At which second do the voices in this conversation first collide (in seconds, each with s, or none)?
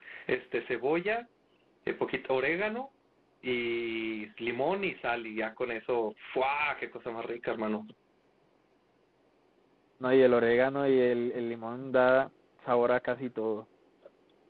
none